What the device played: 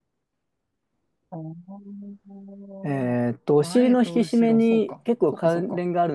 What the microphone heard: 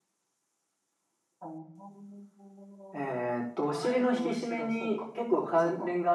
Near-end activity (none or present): none